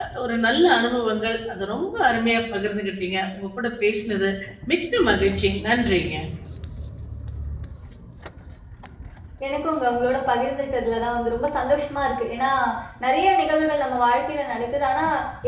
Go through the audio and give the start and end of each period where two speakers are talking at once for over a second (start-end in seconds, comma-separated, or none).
none